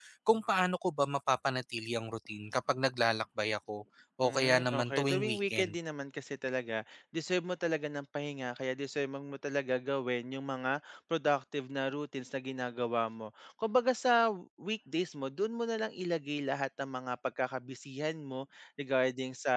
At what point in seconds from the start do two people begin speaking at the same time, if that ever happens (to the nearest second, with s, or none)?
4 s